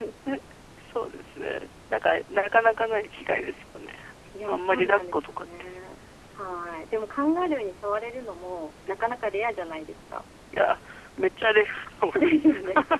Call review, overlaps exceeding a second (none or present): present